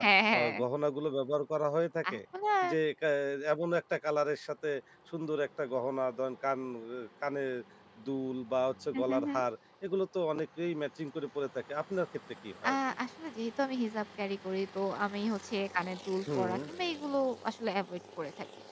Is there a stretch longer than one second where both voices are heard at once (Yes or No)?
No